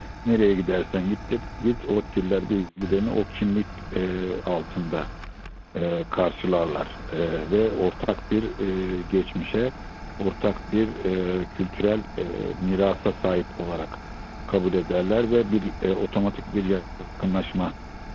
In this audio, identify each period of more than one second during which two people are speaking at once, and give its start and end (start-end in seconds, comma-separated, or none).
none